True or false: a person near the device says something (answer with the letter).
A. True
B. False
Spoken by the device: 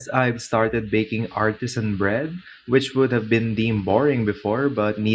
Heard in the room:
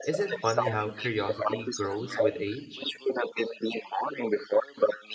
A